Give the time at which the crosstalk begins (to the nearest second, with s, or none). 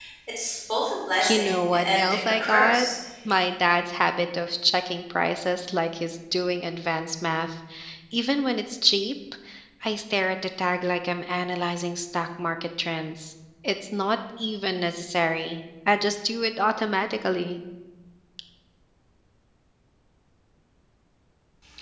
1 s